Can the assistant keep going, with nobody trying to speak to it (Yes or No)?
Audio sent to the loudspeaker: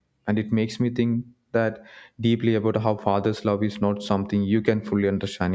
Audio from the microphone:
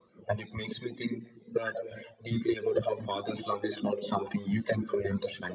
Yes